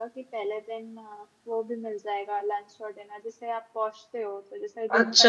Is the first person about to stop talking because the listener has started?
Yes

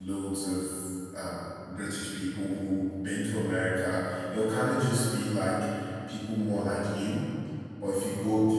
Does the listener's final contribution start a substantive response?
No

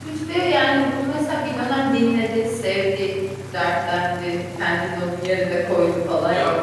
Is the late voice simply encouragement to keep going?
No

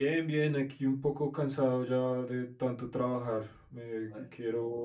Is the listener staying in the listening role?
Yes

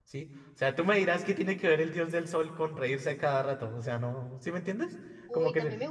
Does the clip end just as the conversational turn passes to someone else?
Yes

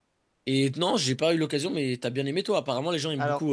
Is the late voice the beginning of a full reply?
Yes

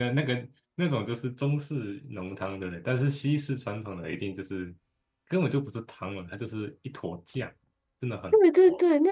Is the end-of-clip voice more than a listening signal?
Yes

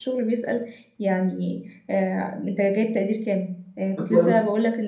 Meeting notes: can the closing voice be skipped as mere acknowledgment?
Yes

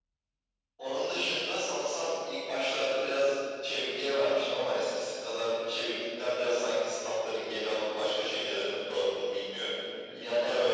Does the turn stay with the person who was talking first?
No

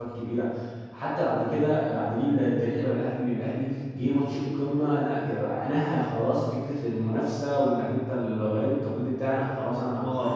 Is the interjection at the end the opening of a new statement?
Yes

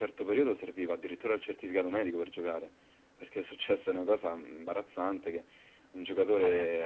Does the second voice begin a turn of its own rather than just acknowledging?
No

